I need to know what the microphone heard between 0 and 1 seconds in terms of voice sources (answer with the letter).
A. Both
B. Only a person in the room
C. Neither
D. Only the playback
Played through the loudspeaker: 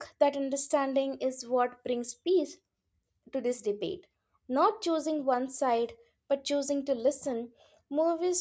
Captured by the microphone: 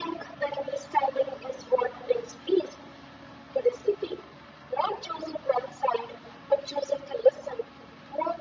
D